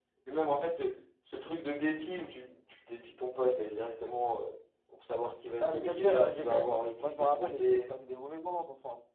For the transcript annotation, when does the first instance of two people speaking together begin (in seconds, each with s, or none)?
5.6 s